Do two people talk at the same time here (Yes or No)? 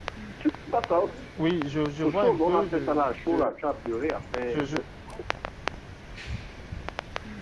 Yes